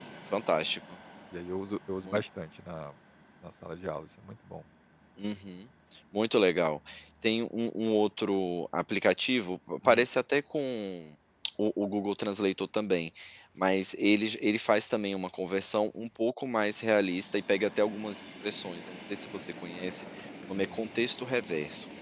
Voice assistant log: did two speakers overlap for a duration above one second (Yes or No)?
No